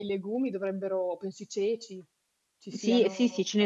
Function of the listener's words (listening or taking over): taking over